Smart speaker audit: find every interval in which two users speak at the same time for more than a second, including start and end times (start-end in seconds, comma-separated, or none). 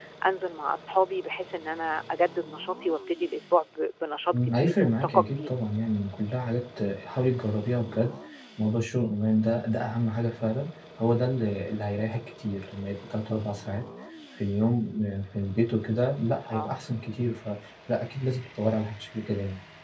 4.3-5.5